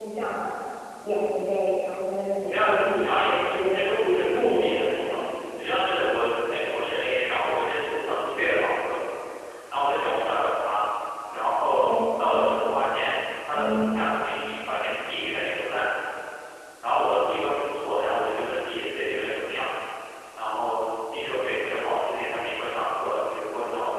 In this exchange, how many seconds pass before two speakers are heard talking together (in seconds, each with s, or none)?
2.4 s